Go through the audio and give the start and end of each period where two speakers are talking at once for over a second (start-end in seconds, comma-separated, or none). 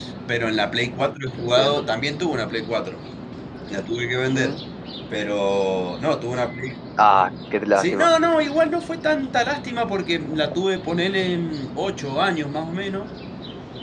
none